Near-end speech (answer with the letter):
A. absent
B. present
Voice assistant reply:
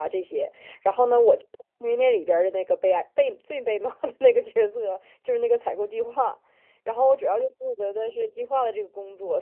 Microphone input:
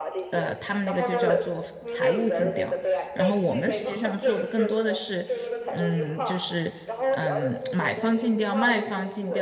B